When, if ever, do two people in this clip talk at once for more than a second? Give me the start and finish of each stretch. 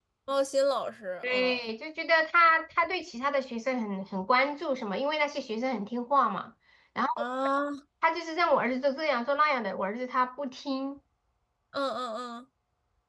none

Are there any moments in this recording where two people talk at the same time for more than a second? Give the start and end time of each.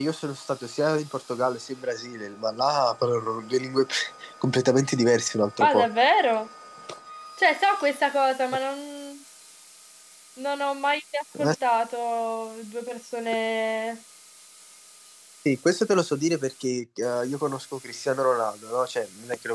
none

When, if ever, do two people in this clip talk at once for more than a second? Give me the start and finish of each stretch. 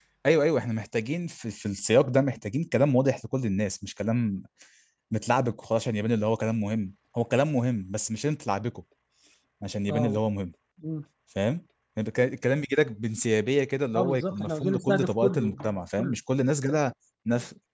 13.9-16.2

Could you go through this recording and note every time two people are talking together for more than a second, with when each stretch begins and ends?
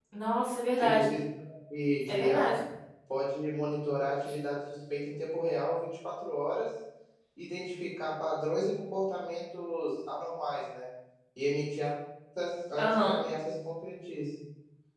none

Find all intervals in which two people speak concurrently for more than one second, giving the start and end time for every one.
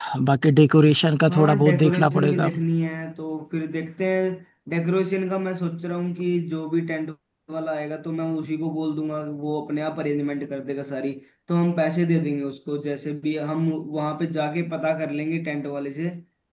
1.3-2.5

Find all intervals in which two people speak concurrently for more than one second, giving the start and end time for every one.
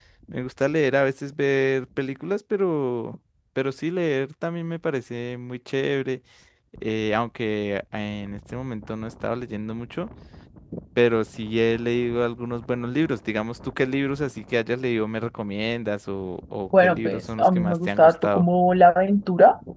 16.8-18.4

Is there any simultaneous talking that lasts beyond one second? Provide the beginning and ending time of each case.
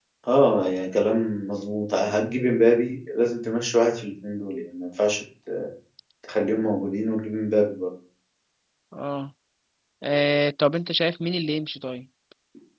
none

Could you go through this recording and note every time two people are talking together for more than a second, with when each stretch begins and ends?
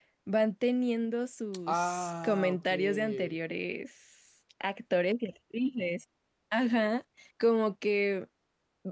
1.7-3.4

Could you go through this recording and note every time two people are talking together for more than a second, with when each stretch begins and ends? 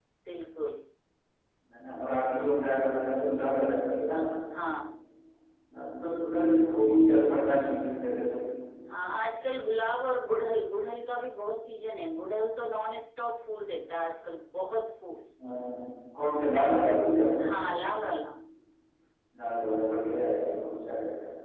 none

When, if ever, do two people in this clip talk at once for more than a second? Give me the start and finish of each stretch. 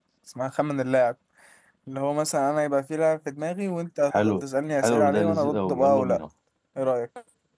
4.8-6.2

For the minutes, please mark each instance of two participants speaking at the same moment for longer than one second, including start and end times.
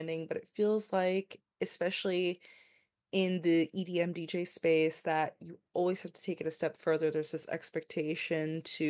none

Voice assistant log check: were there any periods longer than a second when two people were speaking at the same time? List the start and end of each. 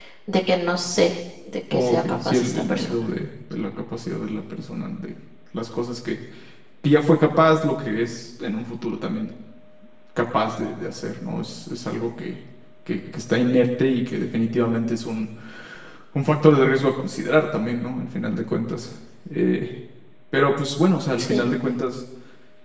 1.7-3.0

